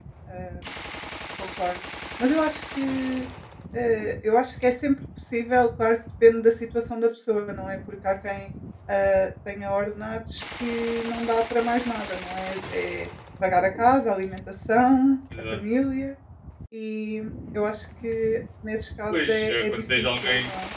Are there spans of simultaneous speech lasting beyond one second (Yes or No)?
Yes